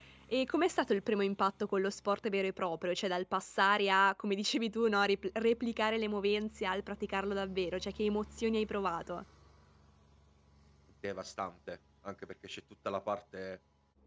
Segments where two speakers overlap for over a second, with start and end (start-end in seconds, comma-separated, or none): none